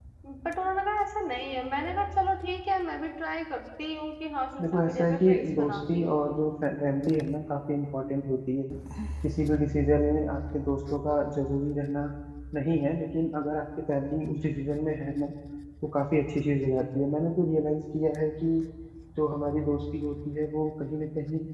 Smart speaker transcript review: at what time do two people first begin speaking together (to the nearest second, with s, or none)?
5 s